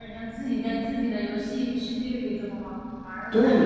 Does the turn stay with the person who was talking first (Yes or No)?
No